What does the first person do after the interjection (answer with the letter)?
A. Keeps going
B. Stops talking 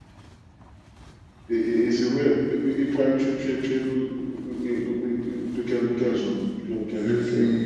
B